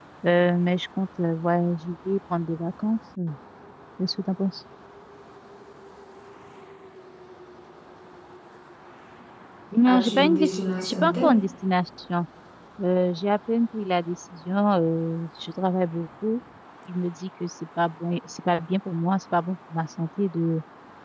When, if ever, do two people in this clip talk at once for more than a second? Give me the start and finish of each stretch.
9.9-11.3

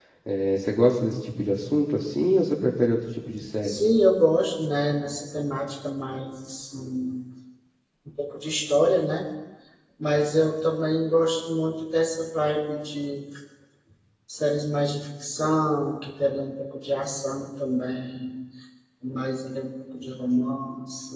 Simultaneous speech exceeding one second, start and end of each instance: none

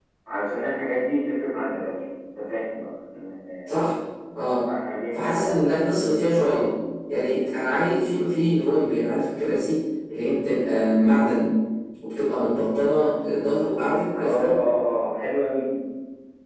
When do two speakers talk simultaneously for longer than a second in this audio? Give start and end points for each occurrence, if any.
none

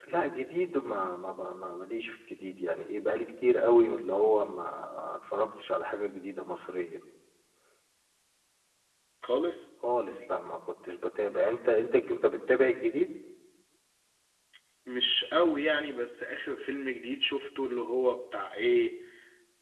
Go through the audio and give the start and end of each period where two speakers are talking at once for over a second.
none

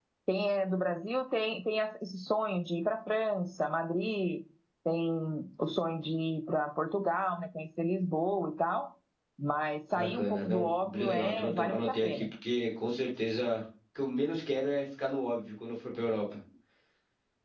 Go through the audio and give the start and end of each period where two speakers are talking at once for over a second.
9.9-12.2

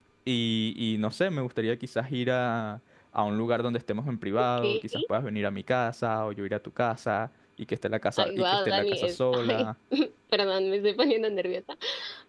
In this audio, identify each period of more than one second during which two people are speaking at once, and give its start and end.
8.2-9.7

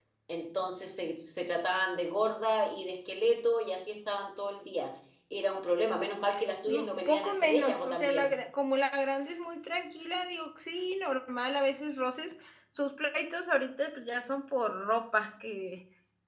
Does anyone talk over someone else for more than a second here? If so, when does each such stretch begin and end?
6.7-8.3

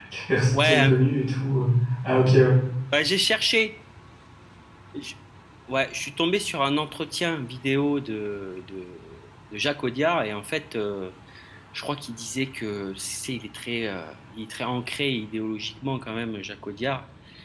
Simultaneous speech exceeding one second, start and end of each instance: none

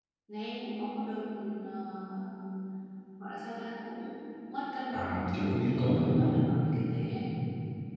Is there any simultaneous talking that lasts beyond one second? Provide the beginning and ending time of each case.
4.9-6.4

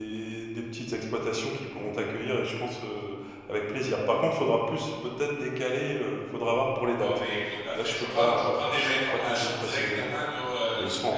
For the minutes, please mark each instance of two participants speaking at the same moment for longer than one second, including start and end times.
7.7-10.1

